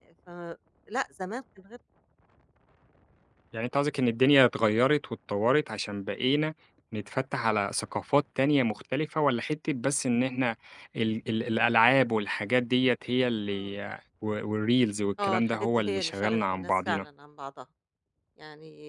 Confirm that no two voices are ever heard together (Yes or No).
No